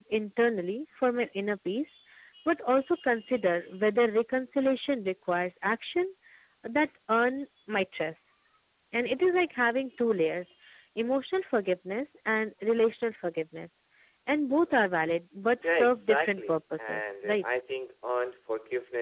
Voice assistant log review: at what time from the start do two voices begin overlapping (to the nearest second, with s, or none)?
16 s